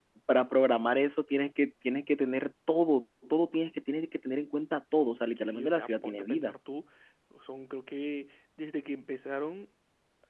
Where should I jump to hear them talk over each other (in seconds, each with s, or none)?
5.2 s